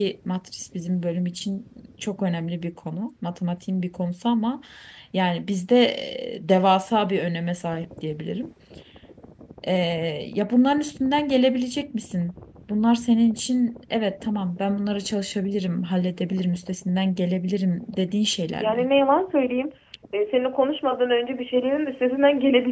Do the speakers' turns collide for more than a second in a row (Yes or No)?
No